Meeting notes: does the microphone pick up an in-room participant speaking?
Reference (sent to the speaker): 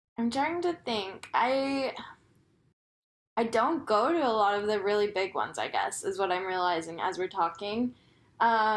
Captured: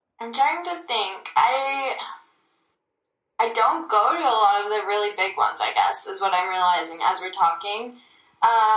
No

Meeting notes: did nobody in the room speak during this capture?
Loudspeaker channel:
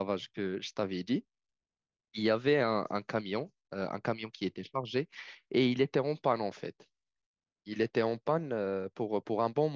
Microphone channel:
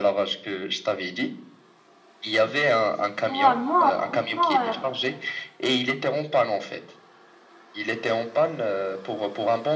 No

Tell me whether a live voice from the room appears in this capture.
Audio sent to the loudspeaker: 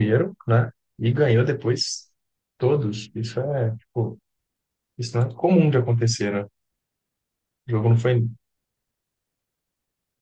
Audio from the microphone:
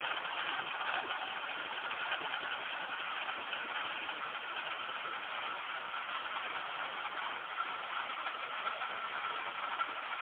No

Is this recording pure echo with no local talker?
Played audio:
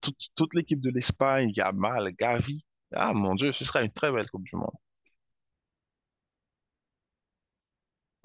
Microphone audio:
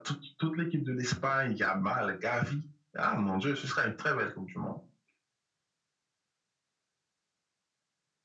Yes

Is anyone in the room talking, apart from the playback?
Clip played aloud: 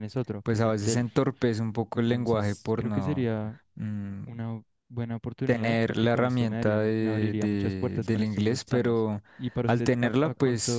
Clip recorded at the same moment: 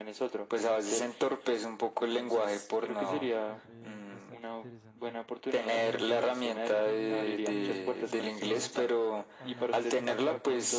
Yes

